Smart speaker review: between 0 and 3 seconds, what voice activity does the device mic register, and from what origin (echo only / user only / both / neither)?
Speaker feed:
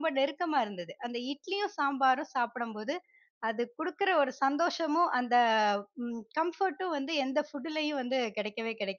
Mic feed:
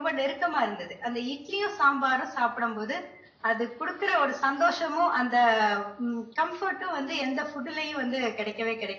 echo only